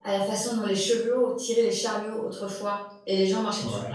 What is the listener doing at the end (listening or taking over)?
listening